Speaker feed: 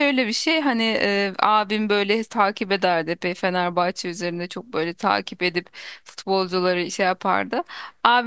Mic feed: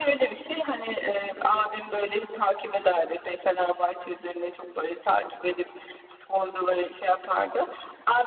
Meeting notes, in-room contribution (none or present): none